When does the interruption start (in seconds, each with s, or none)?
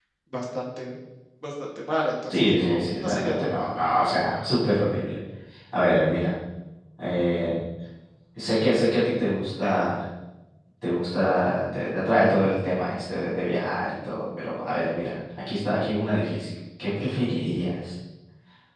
2.3 s